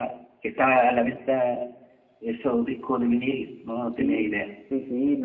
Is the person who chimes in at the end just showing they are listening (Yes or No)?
No